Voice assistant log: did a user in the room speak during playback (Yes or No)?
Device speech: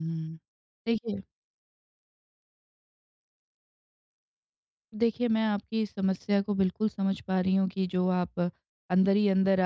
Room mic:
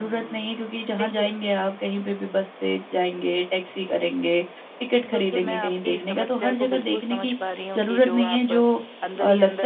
Yes